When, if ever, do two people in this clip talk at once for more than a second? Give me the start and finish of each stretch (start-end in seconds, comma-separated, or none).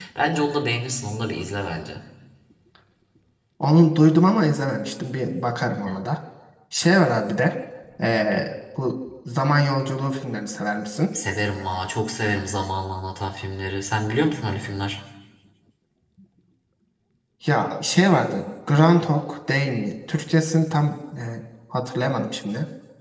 none